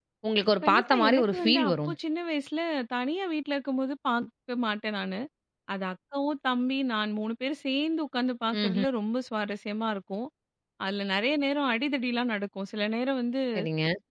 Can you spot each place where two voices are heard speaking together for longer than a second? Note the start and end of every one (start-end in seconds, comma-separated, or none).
0.6-1.9